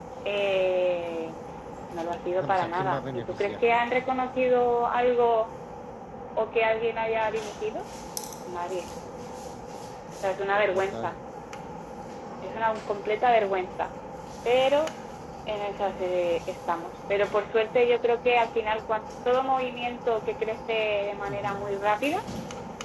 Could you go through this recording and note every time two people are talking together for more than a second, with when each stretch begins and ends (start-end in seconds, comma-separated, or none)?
2.4-3.6